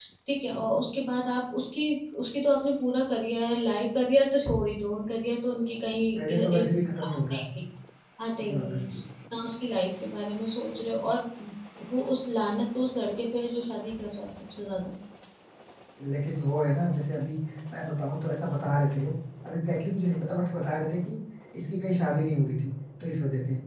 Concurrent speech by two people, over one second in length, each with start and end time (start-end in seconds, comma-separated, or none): 6.2-7.4